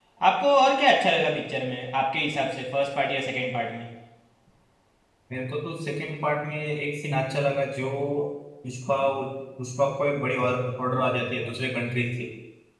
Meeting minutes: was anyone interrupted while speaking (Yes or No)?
No